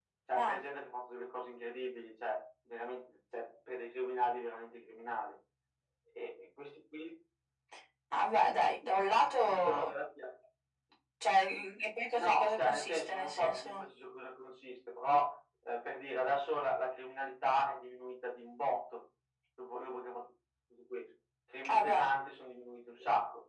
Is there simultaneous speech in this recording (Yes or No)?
Yes